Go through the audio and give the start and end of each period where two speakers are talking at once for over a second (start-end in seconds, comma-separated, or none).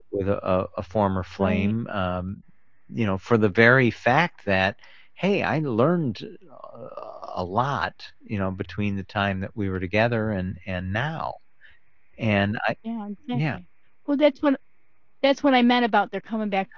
none